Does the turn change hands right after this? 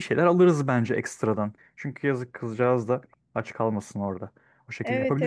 Yes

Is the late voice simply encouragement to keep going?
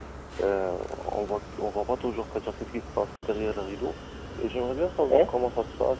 Yes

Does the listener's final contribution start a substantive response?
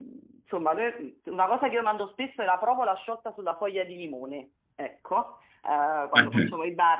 No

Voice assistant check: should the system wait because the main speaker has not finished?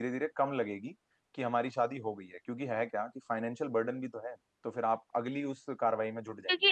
No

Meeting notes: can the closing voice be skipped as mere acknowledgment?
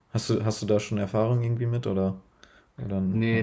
No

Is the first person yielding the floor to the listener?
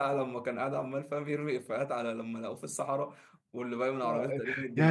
Yes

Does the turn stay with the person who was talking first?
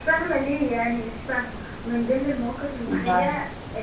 Yes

